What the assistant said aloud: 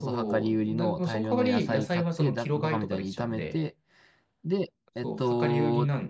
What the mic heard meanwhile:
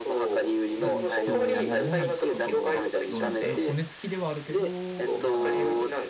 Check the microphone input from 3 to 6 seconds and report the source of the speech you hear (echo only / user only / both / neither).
both